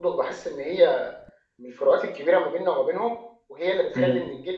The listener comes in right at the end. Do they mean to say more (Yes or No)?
No